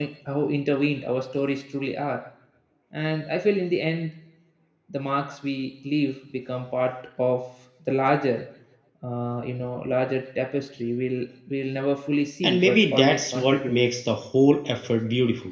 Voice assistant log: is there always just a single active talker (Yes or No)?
No